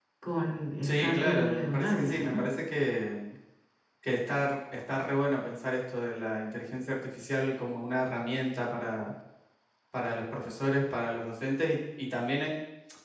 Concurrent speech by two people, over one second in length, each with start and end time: 0.9-2.4

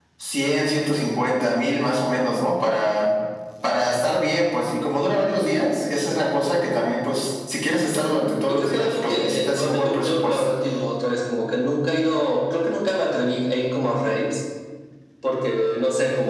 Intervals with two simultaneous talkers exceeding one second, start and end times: 8.5-10.5

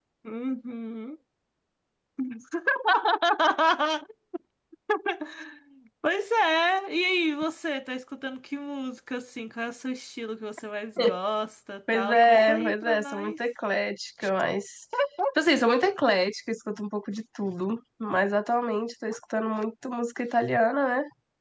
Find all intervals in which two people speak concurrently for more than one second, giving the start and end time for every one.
11.9-13.3

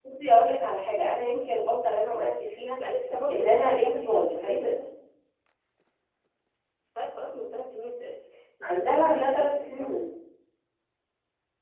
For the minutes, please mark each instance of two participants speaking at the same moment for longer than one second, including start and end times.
3.3-4.7, 8.6-10.0

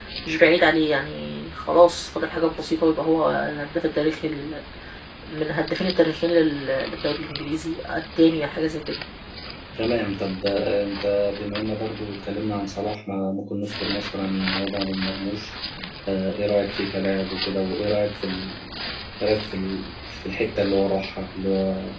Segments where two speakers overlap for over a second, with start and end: none

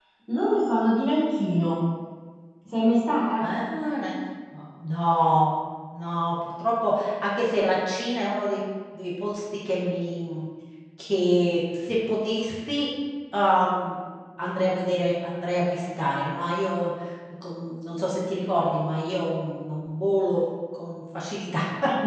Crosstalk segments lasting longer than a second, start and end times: none

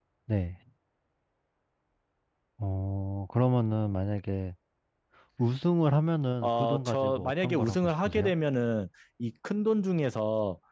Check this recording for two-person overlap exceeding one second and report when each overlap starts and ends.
6.4-8.3

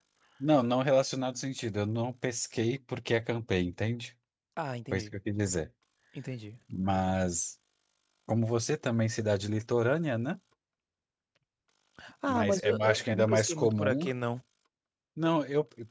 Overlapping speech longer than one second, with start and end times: 12.3-14.0

